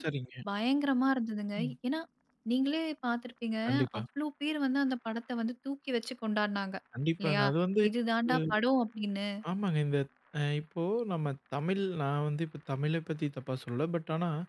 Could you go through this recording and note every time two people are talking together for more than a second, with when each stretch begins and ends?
none

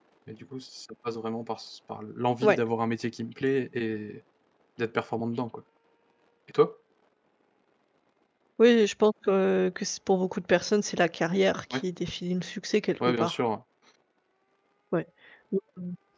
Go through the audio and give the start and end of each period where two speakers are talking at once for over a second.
none

